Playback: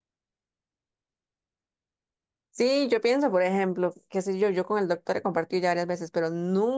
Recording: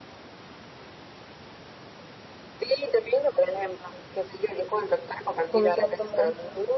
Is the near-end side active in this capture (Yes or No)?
Yes